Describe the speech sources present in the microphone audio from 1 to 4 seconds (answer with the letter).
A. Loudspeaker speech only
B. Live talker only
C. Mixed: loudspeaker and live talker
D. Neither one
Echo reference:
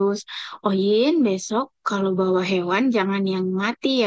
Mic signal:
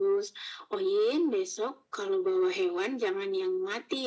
A